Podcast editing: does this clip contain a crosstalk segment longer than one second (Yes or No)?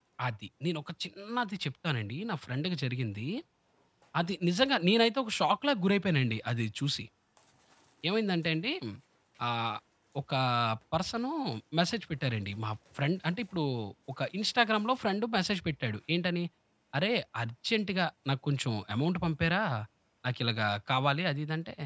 No